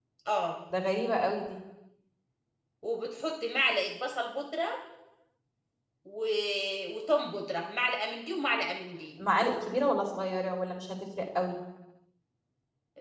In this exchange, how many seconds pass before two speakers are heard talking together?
none

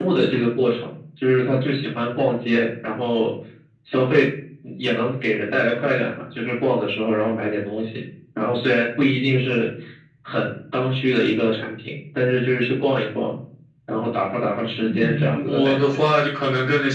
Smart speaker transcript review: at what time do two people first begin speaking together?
15 s

